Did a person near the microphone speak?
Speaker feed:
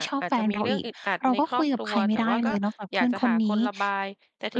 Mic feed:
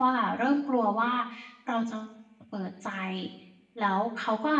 Yes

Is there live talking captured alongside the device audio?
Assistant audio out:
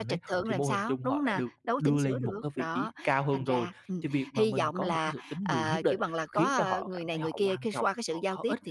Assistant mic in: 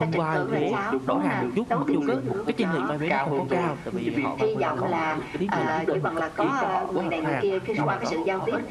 Yes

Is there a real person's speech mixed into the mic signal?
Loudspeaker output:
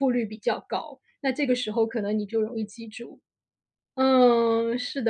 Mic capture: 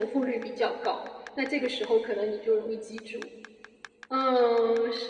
No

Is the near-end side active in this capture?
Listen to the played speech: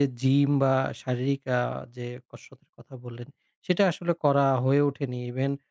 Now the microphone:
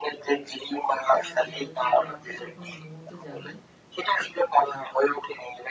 Yes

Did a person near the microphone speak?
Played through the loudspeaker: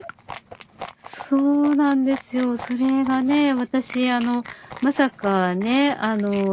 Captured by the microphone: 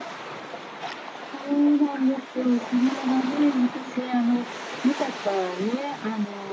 No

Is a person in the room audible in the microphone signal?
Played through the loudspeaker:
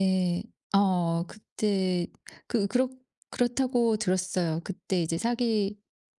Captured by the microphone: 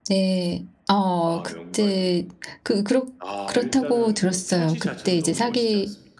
Yes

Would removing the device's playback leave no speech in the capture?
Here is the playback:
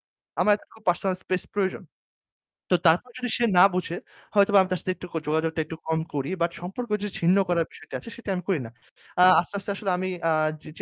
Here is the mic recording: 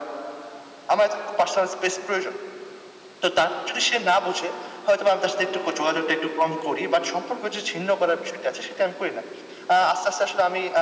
Yes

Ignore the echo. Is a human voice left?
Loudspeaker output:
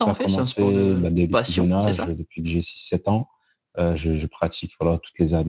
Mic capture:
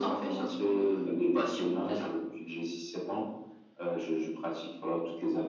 No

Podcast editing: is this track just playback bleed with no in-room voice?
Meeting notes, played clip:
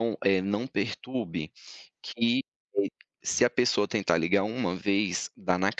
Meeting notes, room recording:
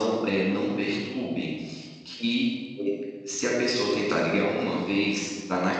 Yes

